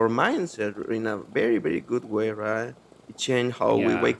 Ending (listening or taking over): listening